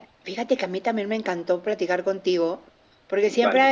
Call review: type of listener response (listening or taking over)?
listening